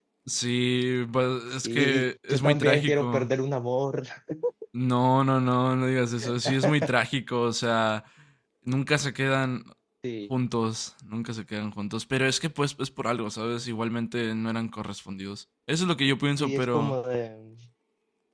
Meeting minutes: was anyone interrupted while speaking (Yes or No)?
Yes